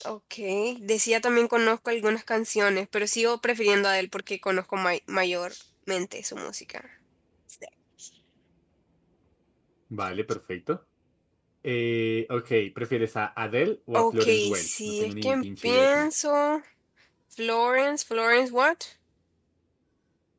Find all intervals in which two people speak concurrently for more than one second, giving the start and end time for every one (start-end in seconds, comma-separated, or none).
13.9-16.1